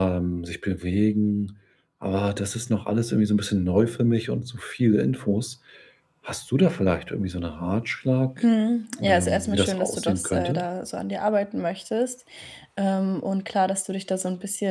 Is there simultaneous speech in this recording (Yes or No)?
Yes